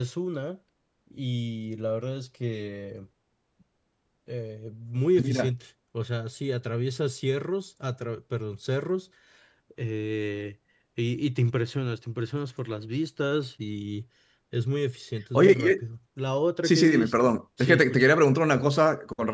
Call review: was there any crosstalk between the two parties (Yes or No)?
Yes